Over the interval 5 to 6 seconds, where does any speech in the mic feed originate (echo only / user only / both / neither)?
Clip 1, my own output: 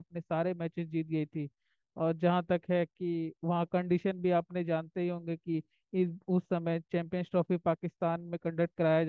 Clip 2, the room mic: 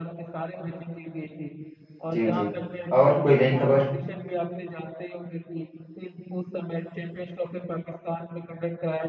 echo only